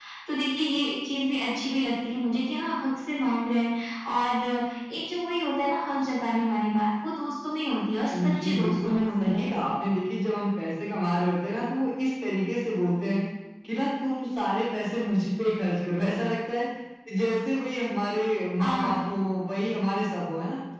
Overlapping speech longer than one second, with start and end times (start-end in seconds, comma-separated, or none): 8.1-9.5